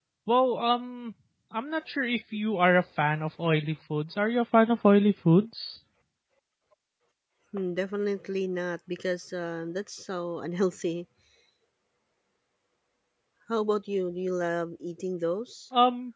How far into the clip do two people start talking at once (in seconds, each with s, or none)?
none